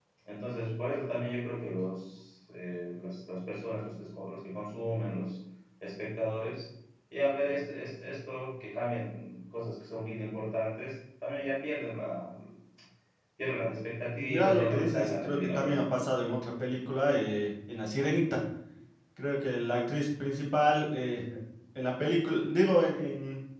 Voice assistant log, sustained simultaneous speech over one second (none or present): present